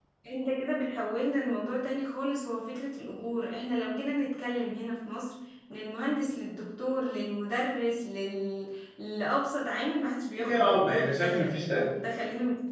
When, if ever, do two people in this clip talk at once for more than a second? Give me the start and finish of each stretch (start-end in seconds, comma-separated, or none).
10.4-11.9